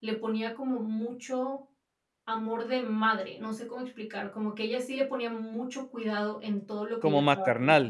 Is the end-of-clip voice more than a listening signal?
No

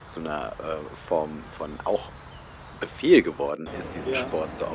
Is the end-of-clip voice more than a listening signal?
No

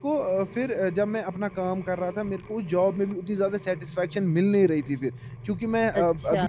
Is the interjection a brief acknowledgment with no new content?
Yes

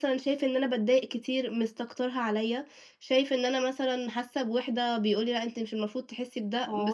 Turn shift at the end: Yes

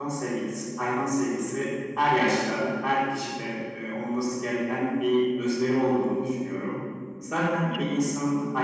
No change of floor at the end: Yes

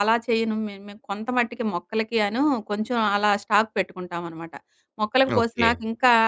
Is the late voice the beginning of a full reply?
No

